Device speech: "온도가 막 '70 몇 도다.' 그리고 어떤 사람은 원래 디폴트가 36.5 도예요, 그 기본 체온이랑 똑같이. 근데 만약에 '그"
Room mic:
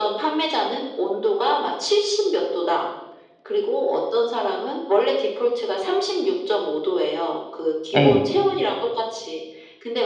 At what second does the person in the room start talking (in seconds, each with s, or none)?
8.0 s